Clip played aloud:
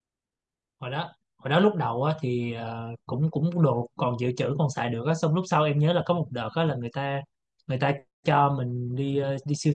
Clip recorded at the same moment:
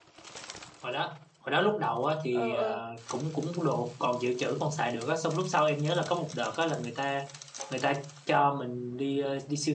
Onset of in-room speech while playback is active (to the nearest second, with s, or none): 2 s